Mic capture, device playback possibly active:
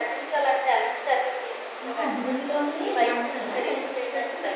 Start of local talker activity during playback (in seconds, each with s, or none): 1.9 s